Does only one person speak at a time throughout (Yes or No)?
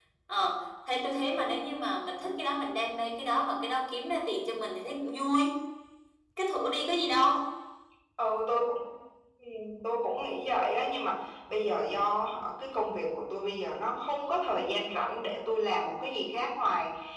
Yes